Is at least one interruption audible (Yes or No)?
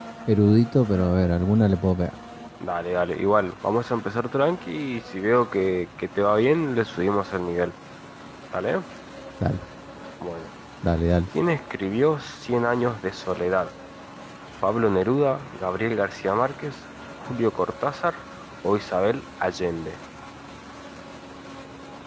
No